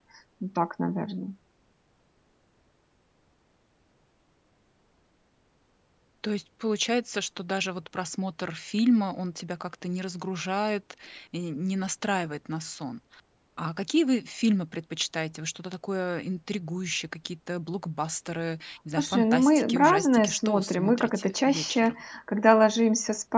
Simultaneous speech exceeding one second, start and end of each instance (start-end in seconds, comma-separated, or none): 19.0-21.9